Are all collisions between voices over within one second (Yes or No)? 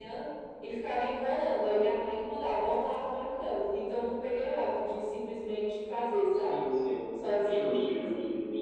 Yes